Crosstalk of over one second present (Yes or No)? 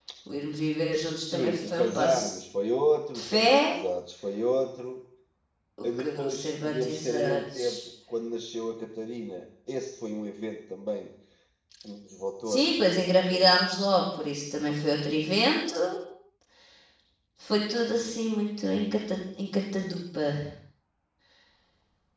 Yes